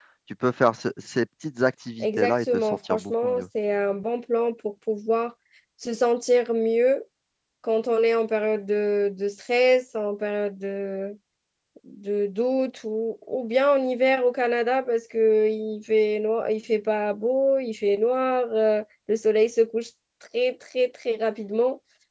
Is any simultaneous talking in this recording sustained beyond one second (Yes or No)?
Yes